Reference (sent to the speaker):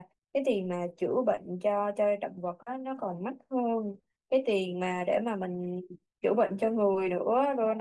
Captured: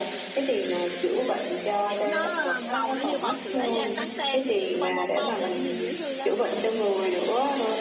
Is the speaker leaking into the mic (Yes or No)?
Yes